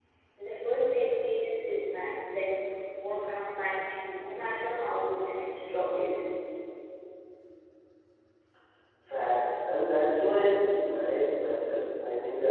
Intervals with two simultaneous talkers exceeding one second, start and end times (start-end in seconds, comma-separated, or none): none